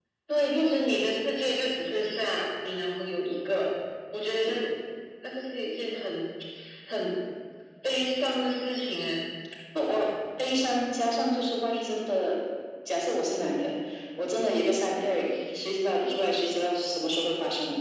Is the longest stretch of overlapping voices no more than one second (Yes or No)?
Yes